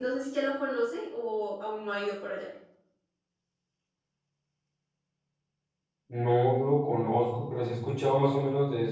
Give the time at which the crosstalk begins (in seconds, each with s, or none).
none